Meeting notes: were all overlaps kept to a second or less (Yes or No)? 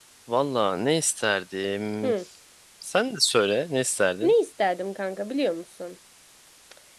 Yes